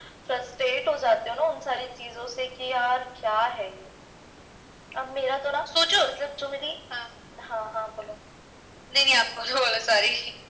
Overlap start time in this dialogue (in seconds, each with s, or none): none